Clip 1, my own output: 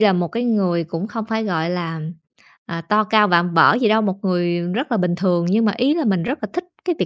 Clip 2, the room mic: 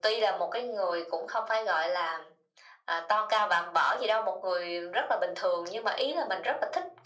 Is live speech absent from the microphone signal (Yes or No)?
Yes